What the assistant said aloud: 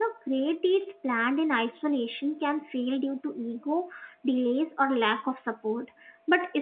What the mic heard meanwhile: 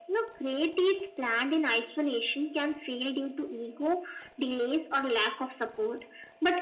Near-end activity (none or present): none